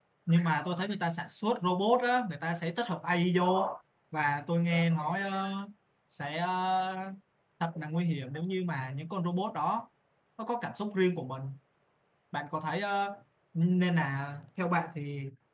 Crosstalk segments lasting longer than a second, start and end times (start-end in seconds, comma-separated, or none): none